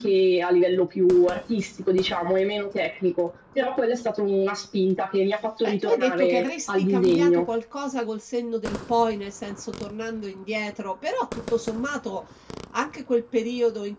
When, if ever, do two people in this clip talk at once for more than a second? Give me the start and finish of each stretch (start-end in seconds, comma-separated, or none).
5.6-7.5